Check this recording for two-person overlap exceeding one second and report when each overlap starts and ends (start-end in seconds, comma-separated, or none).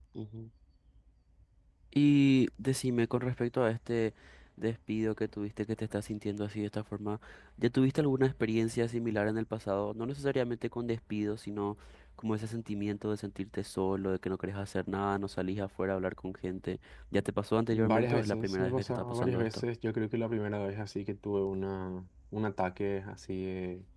17.7-19.6